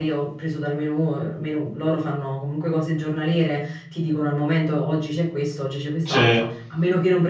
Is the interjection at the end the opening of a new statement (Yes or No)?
No